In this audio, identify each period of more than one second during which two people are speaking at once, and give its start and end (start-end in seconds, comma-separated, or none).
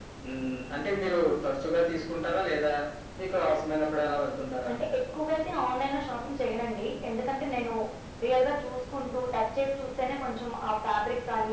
none